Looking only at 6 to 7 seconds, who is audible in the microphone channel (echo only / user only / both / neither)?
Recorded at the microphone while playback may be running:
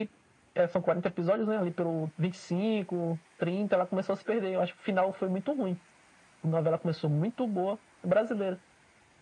echo only